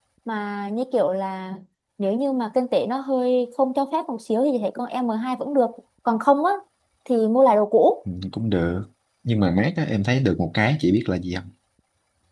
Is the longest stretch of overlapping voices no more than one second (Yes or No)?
Yes